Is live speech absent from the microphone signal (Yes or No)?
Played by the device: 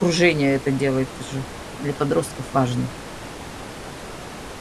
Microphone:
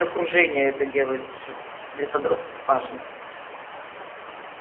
Yes